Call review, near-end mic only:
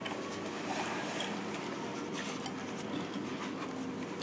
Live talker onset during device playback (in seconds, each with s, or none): none